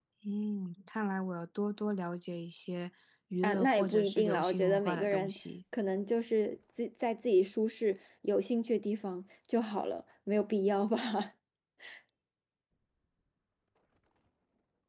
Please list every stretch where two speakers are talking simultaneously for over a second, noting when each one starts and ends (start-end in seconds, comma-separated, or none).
3.4-5.3